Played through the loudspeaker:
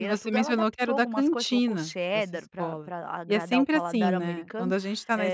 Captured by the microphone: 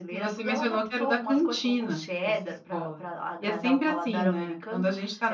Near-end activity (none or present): none